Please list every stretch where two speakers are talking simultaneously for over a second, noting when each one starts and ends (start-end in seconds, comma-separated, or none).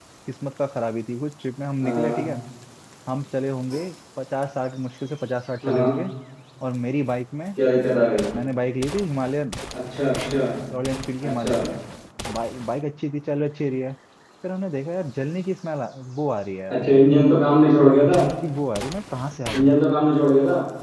none